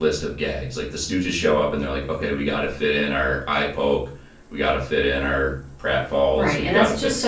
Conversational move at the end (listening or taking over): taking over